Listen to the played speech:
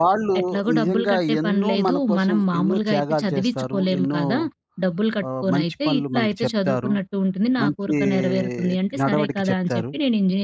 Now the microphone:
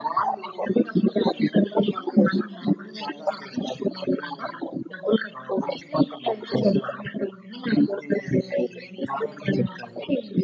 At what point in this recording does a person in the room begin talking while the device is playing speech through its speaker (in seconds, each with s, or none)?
none